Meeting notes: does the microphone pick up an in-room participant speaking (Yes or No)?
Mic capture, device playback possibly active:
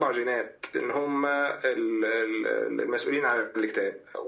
No